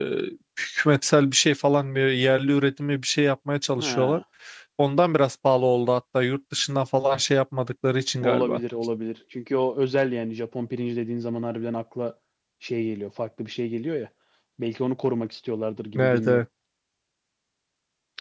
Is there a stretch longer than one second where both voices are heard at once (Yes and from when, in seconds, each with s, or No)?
No